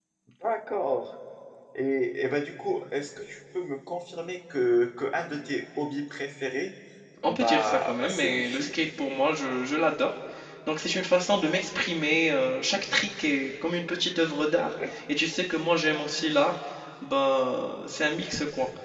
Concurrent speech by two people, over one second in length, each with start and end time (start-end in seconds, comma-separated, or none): 7.3-8.7